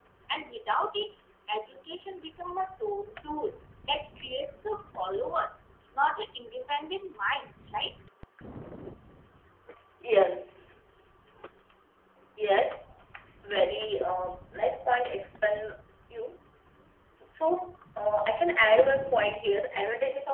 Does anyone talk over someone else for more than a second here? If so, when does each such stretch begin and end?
none

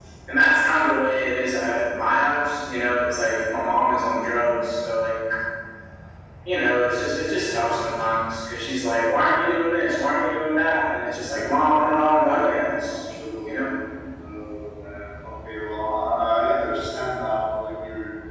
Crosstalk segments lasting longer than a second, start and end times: 11.7-13.0

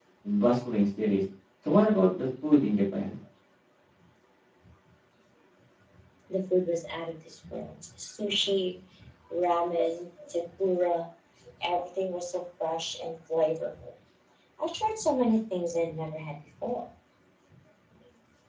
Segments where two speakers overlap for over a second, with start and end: none

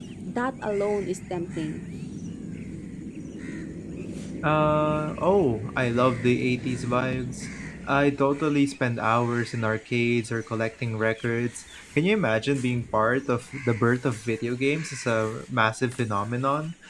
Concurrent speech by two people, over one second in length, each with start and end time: none

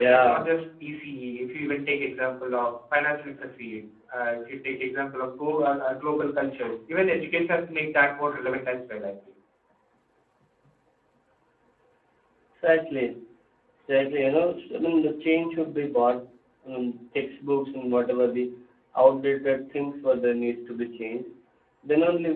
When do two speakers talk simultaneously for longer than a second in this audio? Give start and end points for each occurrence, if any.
none

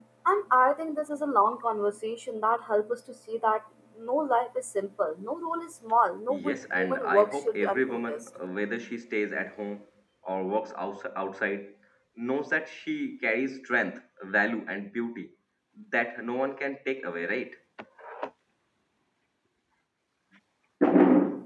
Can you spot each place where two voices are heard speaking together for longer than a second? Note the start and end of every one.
6.3-8.2

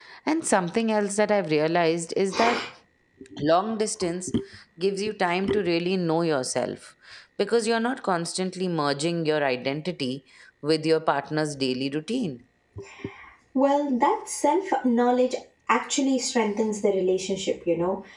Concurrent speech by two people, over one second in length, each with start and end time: none

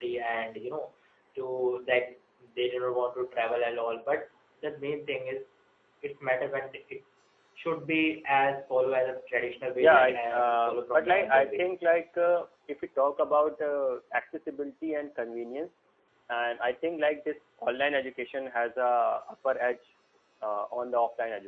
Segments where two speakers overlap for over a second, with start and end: 9.8-11.7

